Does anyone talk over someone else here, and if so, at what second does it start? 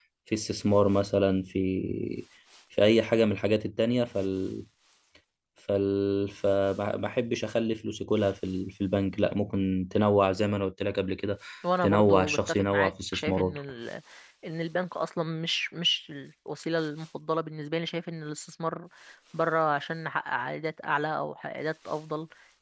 11.8 s

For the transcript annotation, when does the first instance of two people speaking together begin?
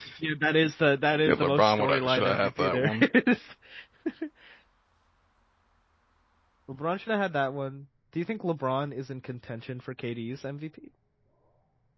1.2 s

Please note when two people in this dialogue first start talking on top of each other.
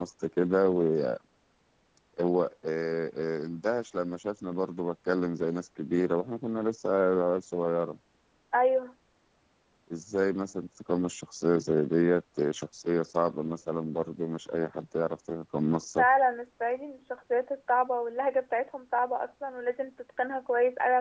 none

